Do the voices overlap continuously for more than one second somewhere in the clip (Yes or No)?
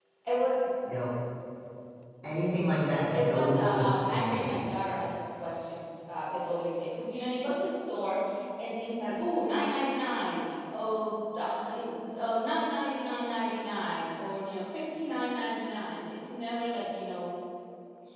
Yes